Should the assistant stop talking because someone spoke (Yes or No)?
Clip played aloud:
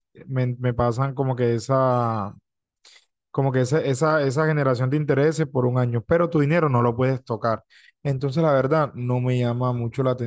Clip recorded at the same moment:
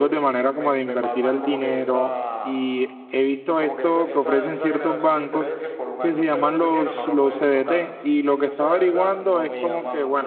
Yes